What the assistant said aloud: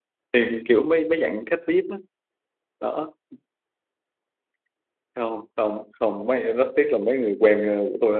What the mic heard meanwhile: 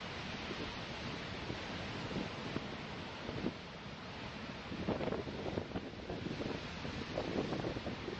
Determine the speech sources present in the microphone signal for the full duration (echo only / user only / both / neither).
neither